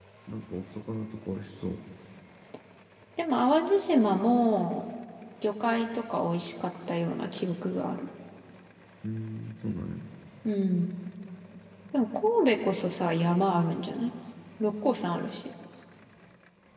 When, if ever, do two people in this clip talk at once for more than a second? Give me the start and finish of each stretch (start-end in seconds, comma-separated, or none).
none